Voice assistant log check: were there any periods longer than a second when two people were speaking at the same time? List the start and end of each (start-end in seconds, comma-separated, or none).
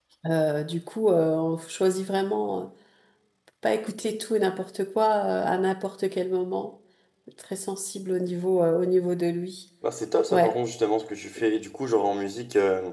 none